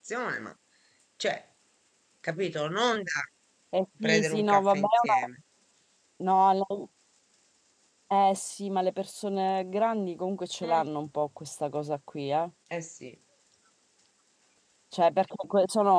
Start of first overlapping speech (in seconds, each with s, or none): 4.0 s